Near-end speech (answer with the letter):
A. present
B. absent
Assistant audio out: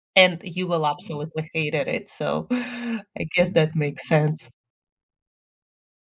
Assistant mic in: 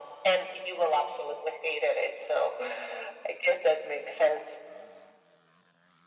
B